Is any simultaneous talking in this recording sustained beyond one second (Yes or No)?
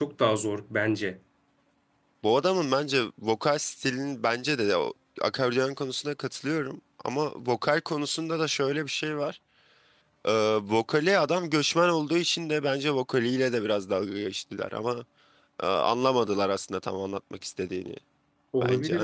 No